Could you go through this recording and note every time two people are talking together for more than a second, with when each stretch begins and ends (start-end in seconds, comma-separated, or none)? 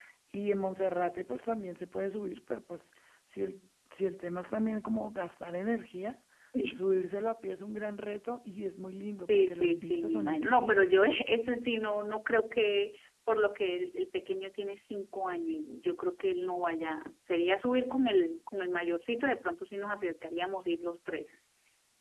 9.2-10.9